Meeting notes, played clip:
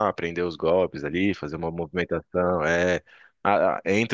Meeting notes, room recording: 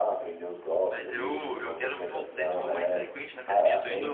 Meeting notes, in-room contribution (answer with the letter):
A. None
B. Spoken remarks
B